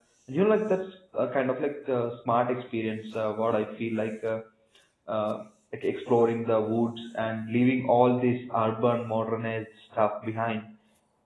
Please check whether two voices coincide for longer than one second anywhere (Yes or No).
No